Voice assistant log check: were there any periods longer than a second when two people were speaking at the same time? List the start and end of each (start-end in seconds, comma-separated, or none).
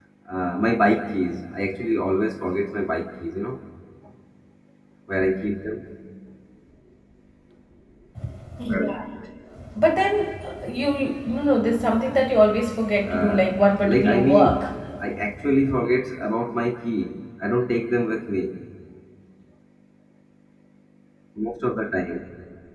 13.1-14.6